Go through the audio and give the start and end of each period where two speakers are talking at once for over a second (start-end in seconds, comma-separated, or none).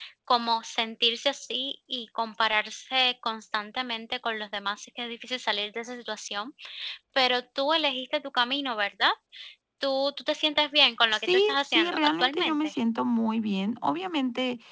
11.1-12.8